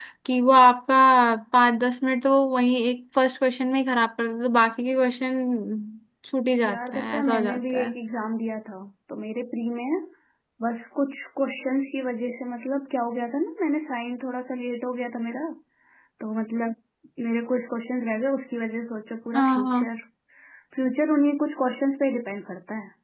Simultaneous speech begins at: 6.6 s

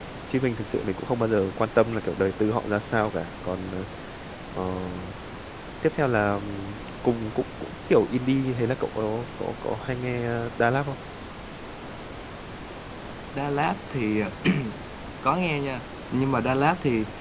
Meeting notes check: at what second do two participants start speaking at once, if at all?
none

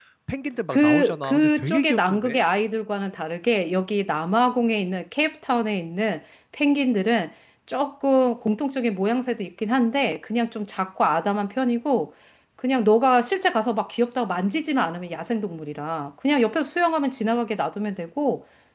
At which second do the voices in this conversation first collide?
0.7 s

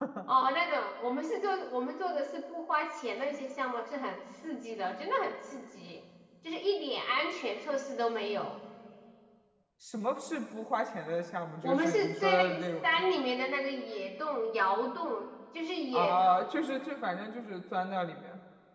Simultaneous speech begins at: 11.6 s

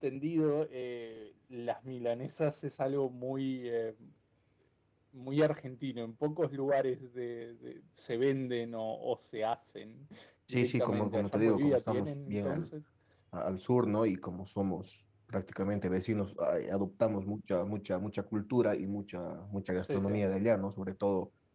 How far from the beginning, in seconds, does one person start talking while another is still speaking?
10.5 s

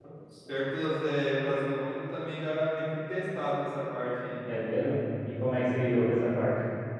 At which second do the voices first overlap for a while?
none

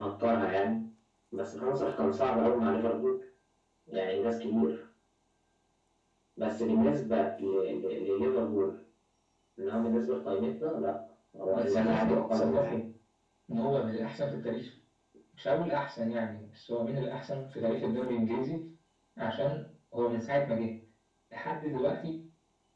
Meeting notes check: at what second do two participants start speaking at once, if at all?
11.5 s

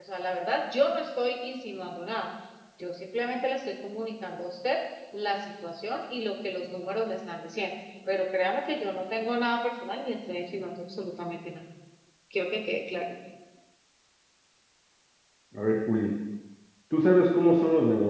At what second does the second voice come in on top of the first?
none

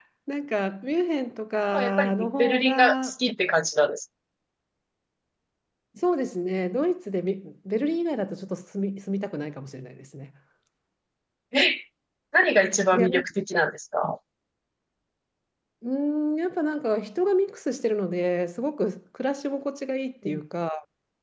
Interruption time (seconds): 1.7 s

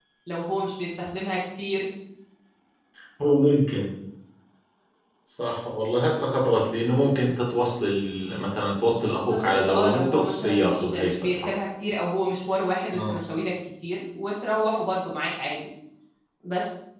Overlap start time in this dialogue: 9.2 s

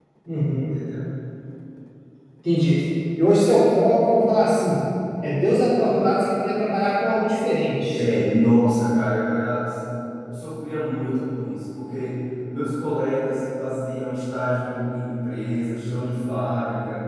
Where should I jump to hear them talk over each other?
none

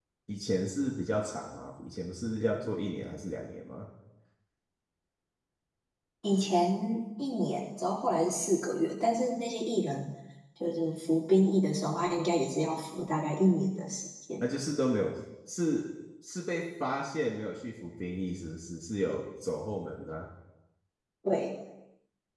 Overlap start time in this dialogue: none

